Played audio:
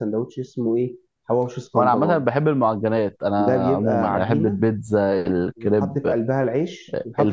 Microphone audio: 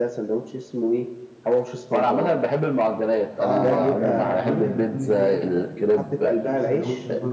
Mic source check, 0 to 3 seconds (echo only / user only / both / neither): echo only